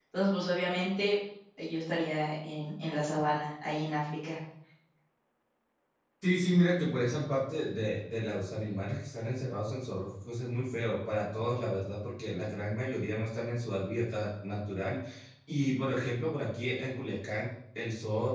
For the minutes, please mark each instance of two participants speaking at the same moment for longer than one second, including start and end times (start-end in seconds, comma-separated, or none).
none